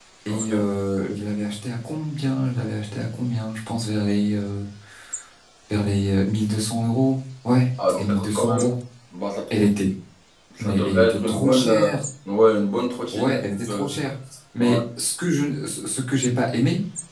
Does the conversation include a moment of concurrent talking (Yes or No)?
Yes